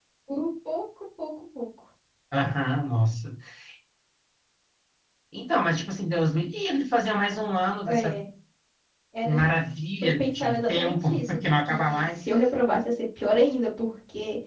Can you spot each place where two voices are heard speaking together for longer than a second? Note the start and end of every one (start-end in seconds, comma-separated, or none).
10.0-12.2